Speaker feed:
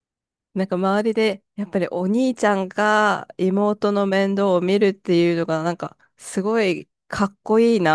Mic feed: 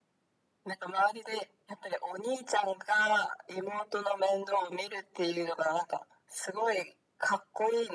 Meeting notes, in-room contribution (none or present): none